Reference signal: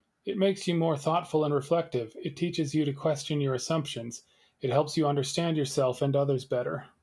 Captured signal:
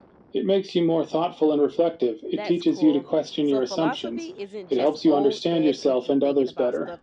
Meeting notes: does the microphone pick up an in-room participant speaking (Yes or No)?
Yes